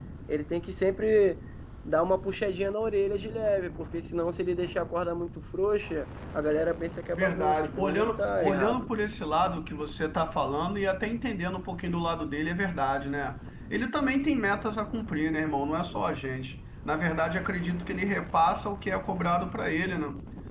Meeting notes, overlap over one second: present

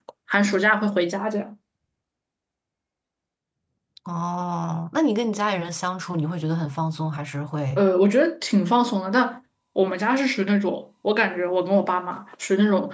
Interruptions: none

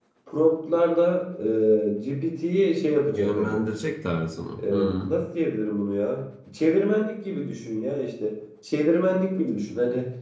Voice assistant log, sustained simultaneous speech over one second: none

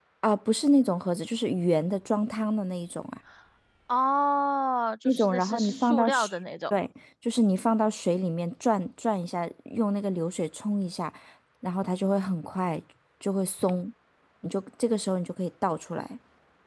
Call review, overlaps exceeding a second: present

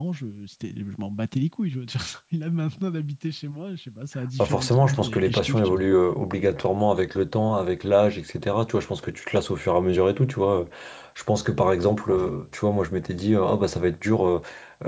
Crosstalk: present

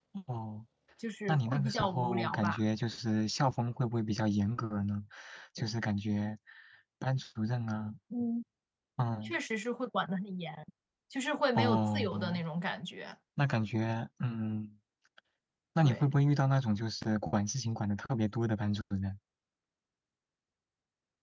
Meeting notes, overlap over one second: present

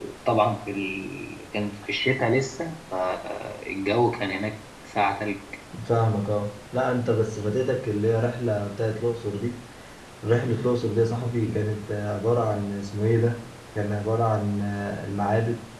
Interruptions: none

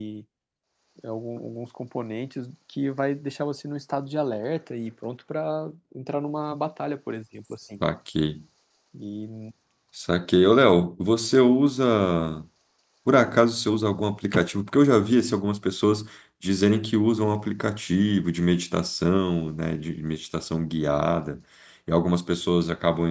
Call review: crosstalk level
none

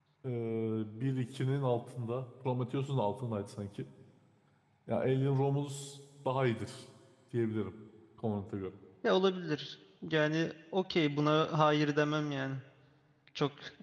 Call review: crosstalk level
none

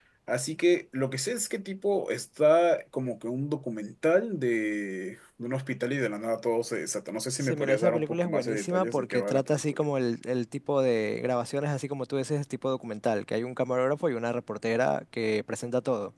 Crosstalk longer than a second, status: present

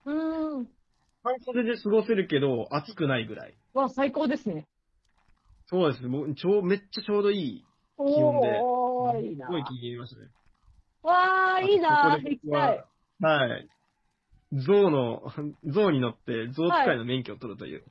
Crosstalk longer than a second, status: present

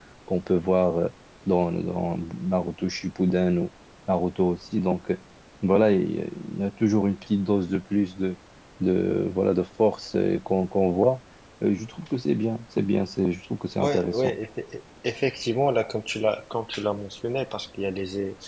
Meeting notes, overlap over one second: none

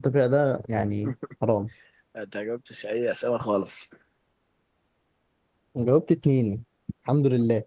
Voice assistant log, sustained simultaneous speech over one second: none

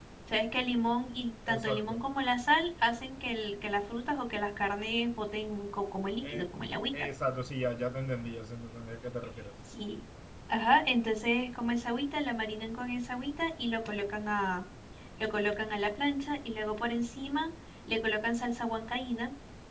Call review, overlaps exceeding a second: none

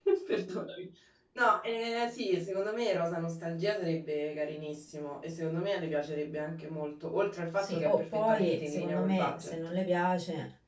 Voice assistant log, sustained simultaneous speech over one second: present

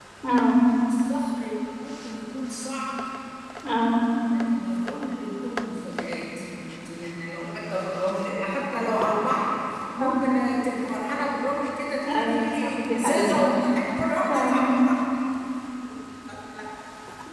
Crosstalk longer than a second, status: present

